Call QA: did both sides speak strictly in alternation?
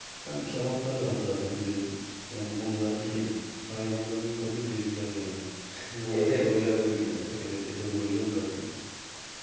No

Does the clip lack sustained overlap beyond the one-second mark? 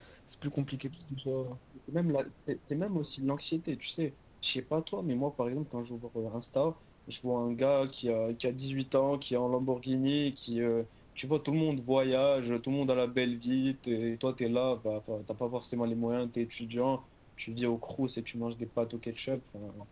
Yes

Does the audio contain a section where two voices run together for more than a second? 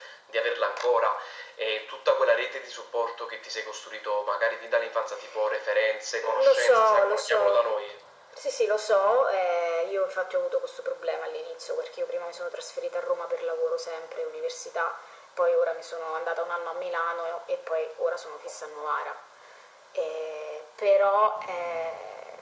Yes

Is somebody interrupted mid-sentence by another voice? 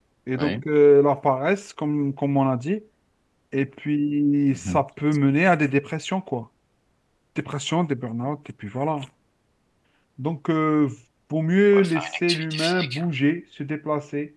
Yes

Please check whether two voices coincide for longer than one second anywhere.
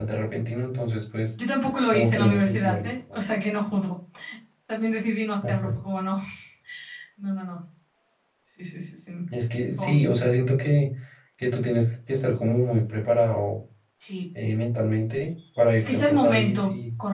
Yes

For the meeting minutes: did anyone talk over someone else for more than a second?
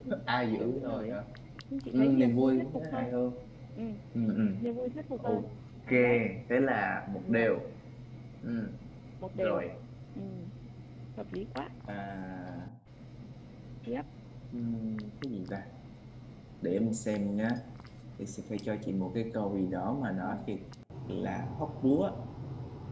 Yes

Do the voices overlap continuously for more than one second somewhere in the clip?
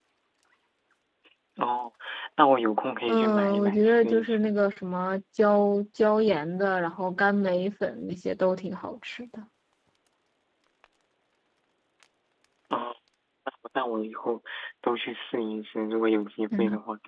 Yes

